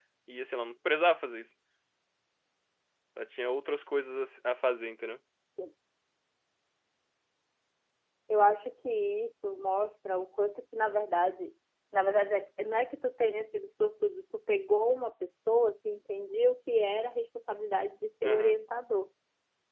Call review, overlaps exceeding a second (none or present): none